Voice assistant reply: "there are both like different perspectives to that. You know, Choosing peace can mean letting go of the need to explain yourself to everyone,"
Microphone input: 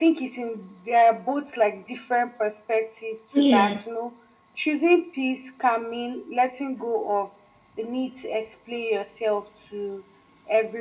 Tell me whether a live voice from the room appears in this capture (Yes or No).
Yes